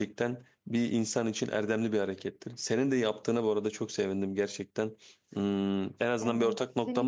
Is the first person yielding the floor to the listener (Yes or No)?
Yes